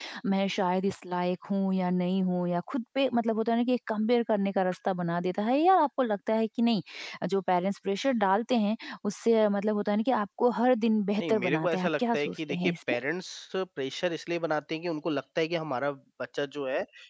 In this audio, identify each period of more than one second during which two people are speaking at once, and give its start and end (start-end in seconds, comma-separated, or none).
11.2-12.7